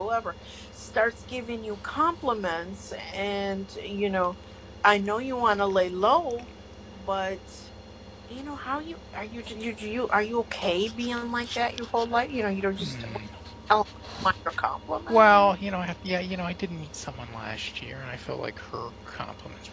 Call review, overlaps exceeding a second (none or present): none